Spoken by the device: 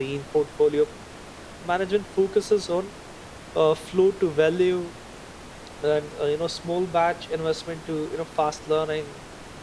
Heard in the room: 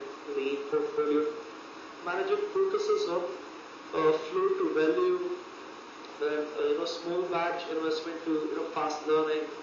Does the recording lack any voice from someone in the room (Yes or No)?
Yes